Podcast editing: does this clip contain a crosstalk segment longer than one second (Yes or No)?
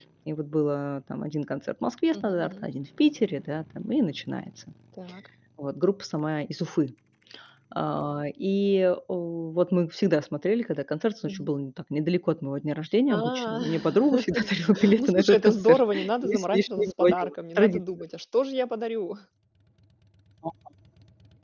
Yes